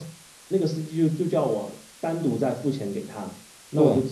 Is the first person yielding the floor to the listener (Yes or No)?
No